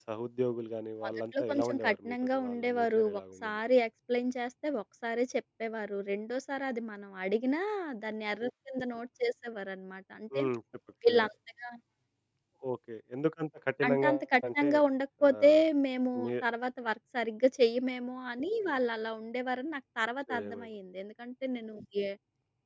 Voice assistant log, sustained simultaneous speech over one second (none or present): present